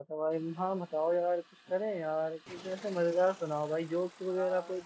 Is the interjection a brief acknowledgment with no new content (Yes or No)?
No